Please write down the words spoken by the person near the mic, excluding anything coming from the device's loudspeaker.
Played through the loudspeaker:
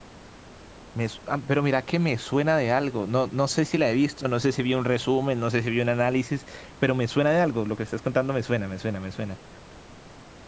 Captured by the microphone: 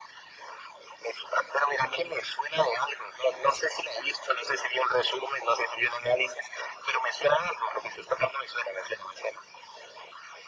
none

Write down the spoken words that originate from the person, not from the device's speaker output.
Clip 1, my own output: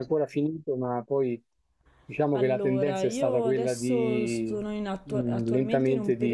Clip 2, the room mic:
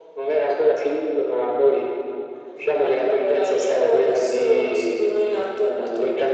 none

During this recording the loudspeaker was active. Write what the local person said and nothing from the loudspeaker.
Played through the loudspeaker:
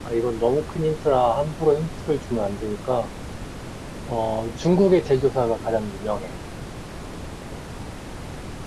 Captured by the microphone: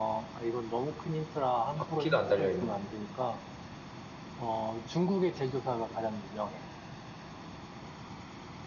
바퀴가 안 달려있나?

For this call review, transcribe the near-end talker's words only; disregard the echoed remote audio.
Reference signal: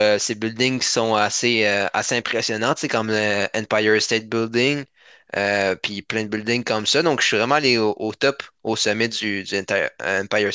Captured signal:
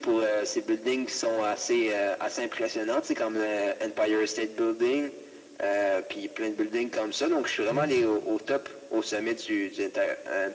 Mhm,

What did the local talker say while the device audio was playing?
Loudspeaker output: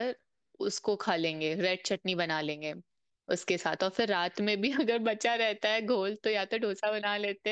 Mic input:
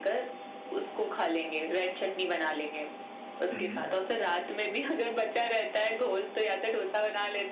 हम्म

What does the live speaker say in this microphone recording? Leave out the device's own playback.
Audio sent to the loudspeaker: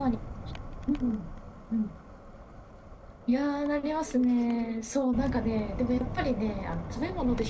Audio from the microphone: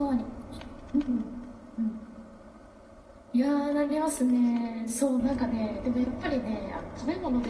none

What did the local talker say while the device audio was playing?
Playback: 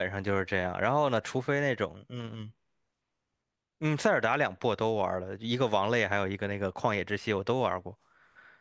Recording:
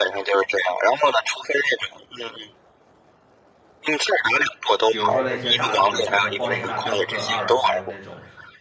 比如说那些大作，像是《荒野大镖客二》，还有那种，

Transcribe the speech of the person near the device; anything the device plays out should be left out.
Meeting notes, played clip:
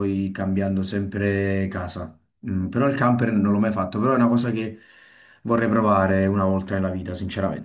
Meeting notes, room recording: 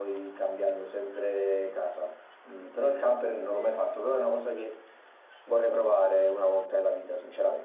Mm.

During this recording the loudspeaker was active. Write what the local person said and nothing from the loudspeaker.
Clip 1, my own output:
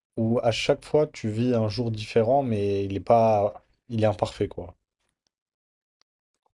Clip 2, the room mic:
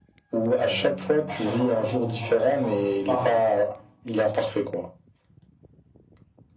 euh, à chaque fois que t'augmentes- enfin, à chaque fois que tu parles,

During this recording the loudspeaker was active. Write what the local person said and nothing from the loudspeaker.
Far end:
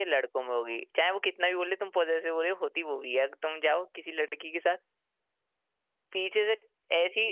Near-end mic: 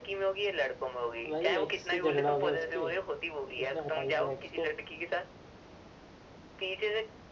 भाई एक्स से झगड़ा हो गया उसके उसने हटा ही दिया एक्स को

